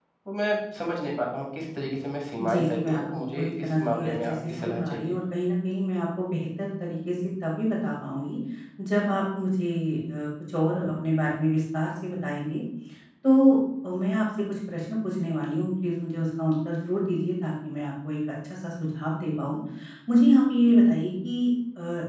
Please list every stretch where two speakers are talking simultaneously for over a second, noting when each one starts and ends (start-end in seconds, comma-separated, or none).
2.4-5.1